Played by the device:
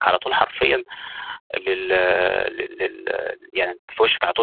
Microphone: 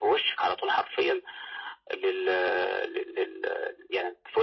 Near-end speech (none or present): none